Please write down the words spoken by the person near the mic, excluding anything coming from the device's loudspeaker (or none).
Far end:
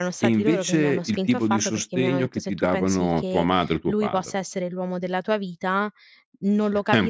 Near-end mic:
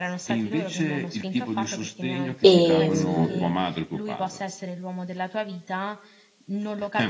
Ehm,